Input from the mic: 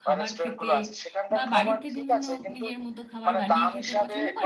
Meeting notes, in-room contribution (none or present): present